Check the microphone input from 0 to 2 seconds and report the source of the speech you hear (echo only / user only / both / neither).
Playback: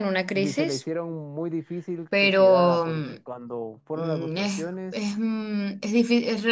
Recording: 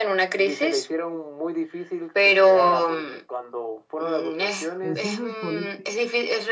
echo only